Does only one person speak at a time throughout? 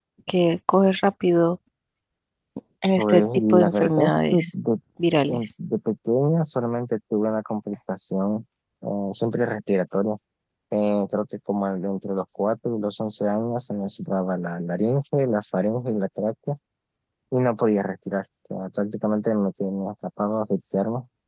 No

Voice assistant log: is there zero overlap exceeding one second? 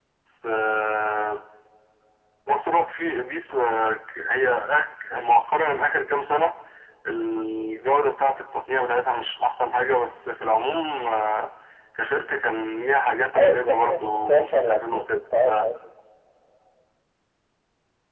No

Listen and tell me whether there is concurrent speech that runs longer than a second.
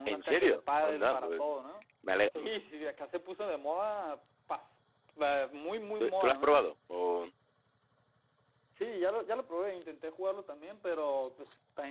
Yes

